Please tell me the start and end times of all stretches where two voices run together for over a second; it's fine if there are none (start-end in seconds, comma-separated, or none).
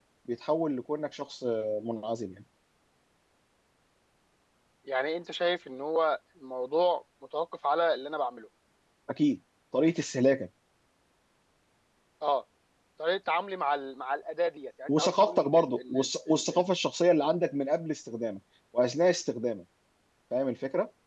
14.9-16.6